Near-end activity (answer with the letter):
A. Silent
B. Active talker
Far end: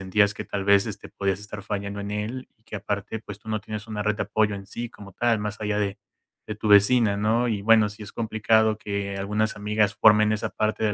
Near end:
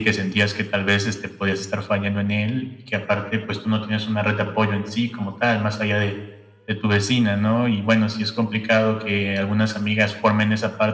A